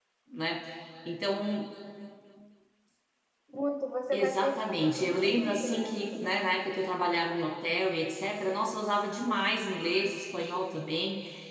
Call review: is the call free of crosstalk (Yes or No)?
No